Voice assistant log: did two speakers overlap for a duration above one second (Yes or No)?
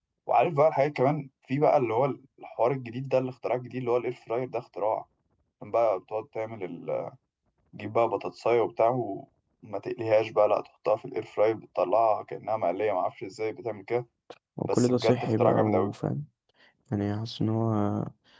Yes